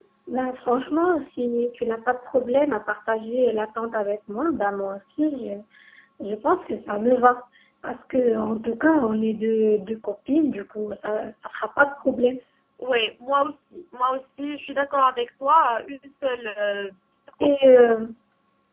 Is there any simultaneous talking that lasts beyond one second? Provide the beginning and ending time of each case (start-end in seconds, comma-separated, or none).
none